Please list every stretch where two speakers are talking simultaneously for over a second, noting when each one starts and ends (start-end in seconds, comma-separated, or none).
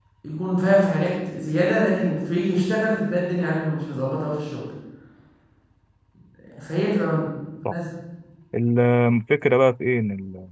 none